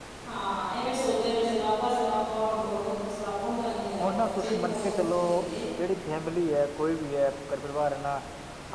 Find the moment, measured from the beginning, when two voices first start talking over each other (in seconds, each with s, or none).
3.9 s